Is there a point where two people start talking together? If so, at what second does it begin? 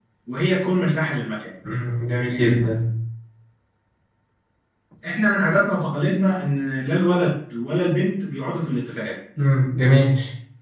none

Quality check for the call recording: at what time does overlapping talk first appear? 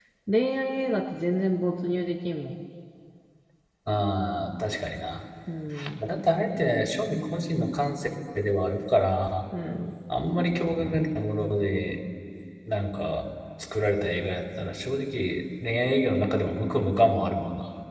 none

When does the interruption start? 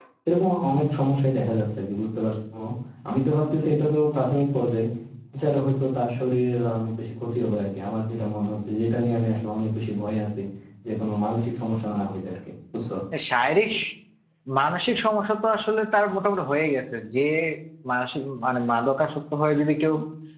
none

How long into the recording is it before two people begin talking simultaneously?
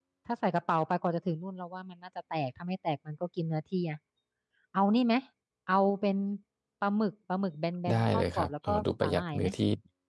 7.9 s

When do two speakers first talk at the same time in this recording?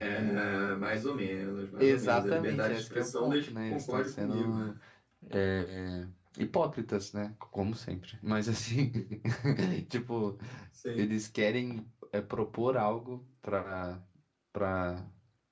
1.8 s

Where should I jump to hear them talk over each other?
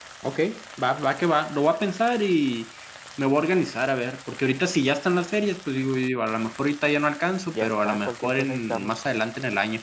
7.5 s

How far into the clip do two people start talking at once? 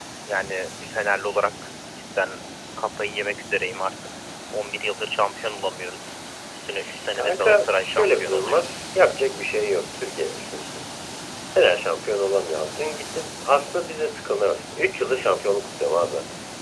7.2 s

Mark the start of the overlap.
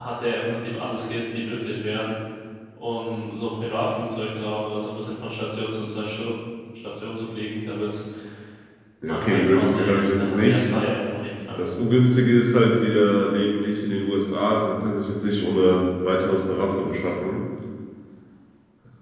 9.0 s

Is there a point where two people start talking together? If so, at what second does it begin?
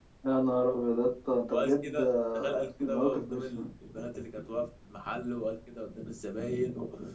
1.5 s

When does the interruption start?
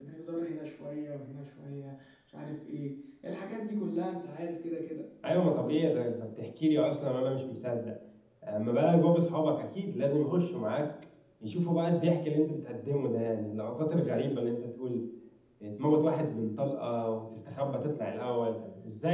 none

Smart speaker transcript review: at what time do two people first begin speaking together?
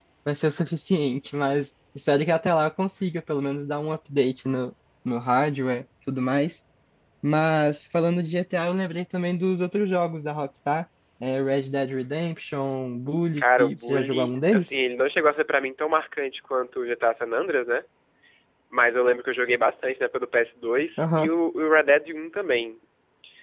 13.4 s

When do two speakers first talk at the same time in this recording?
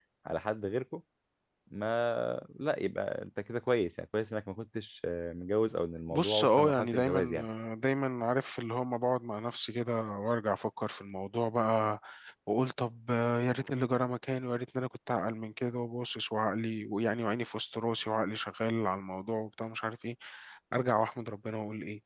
6.1 s

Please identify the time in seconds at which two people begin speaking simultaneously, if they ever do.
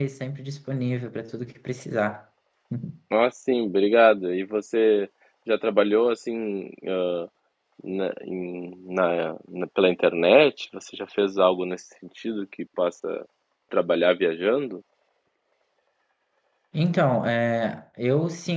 none

